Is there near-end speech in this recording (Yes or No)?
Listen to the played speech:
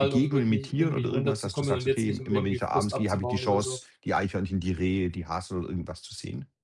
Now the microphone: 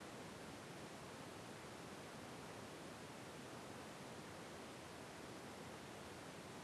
No